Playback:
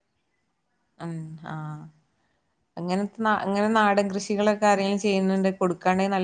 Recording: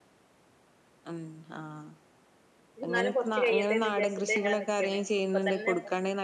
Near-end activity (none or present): present